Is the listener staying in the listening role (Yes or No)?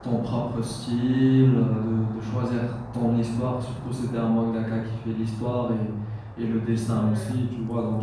Yes